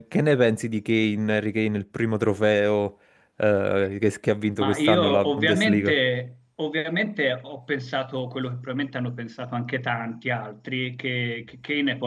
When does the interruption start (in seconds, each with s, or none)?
4.6 s